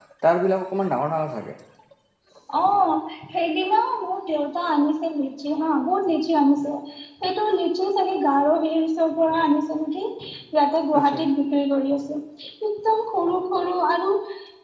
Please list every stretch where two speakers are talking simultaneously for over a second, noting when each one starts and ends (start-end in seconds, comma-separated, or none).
none